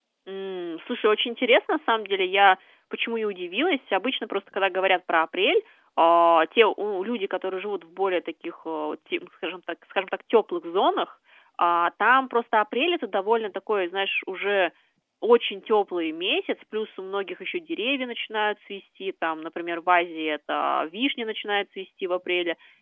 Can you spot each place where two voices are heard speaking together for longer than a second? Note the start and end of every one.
none

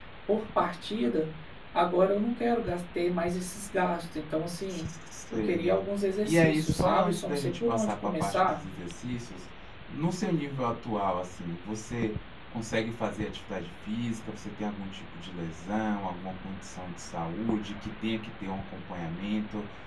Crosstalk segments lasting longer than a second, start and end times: 6.2-8.6

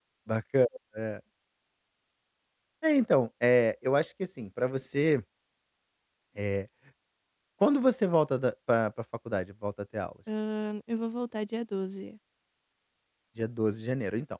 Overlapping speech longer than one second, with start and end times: none

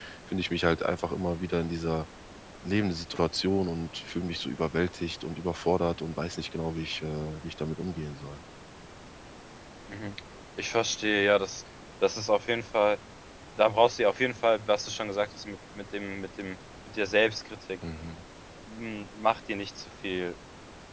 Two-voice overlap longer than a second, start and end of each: none

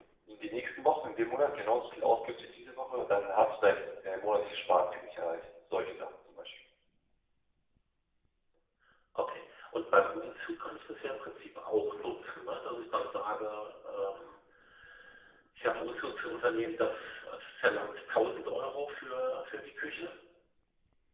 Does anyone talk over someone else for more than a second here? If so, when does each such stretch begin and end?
none

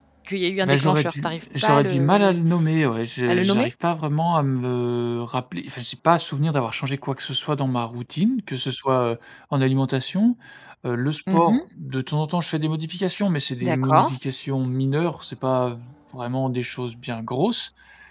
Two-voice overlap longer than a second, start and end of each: 0.7-2.4

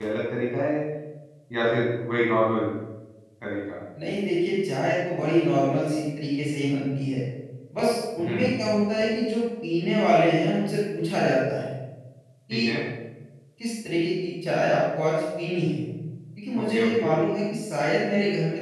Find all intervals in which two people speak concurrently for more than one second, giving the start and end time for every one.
none

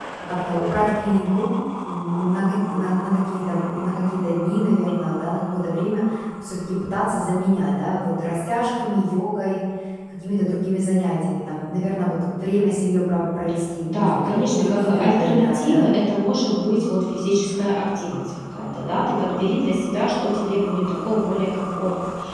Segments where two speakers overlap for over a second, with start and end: 13.8-15.9

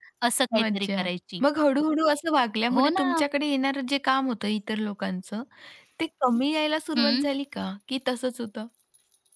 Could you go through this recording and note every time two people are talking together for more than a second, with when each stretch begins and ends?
none

